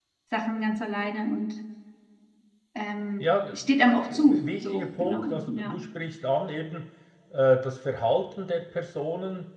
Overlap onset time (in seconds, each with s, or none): 3.2 s